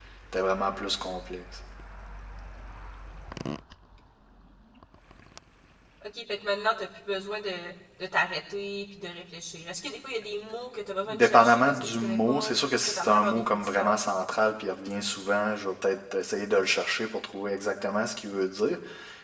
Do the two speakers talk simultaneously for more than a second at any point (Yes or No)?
Yes